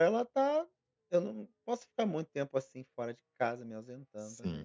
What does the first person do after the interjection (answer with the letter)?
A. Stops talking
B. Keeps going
A